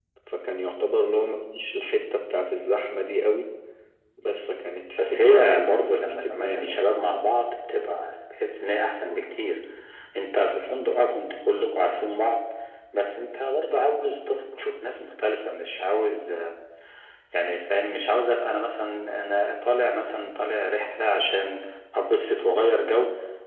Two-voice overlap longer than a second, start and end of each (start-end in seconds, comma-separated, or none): 5.0-6.9